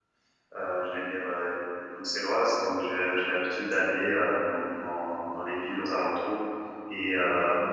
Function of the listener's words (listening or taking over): listening